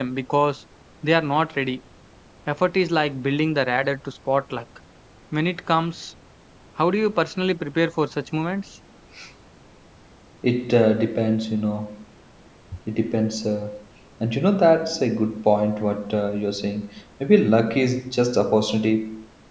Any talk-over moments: No

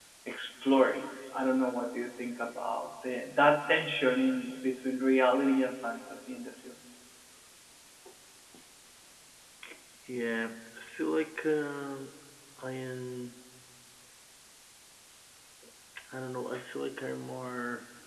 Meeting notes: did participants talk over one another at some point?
No

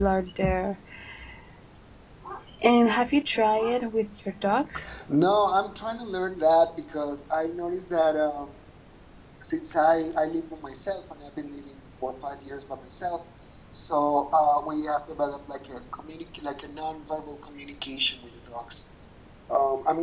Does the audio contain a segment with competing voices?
No

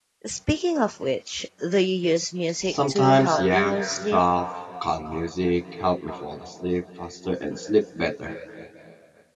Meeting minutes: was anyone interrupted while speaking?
Yes, from 2.6 s

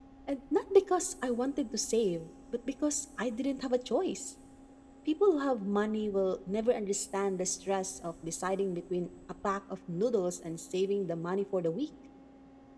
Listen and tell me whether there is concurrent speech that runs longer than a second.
No

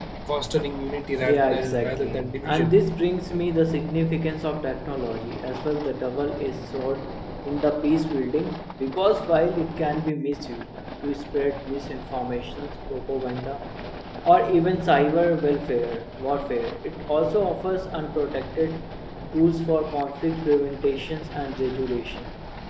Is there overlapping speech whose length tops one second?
Yes, from 1.2 s

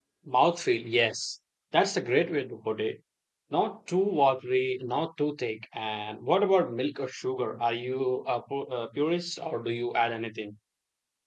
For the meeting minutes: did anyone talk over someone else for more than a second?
No

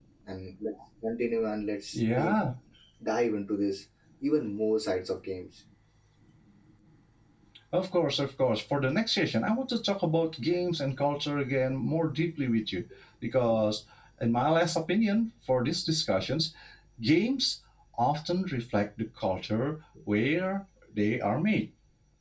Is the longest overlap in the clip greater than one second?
No

